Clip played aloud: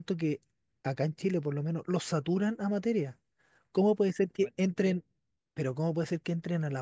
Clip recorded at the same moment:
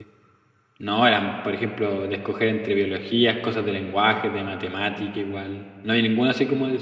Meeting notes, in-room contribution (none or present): present